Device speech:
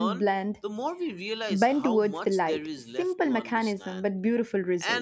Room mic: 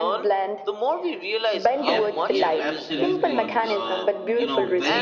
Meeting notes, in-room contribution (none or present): present